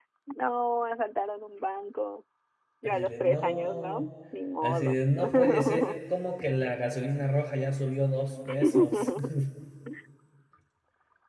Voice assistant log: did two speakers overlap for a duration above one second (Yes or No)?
Yes